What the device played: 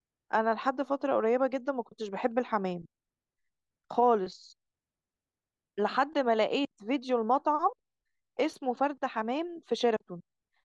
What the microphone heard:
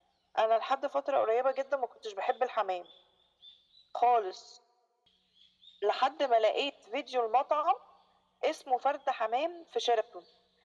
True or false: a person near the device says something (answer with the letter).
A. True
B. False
B